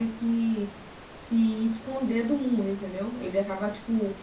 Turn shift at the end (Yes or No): No